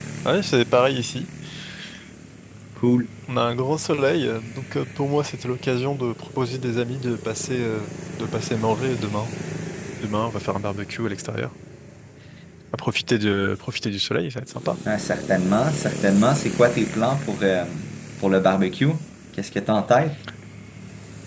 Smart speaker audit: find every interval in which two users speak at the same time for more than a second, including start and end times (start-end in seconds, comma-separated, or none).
none